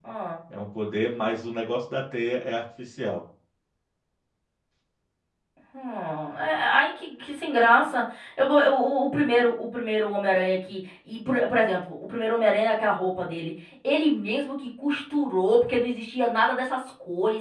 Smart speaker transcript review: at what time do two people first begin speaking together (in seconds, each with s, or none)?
none